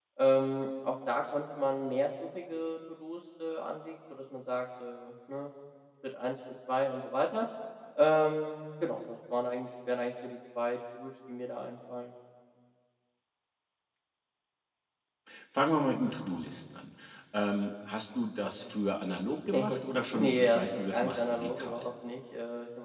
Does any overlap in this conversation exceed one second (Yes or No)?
Yes